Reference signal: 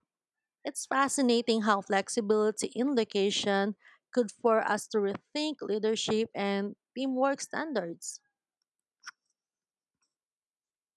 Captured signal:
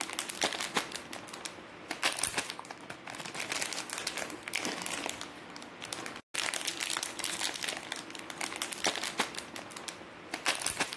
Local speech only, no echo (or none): none